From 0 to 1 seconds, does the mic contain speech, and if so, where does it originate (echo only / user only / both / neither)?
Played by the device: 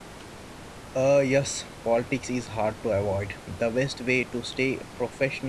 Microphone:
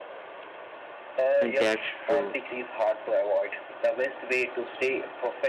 neither